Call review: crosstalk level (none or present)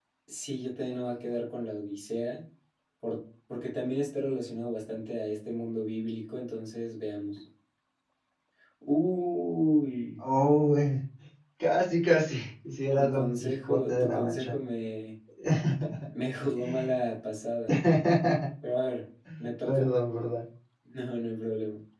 present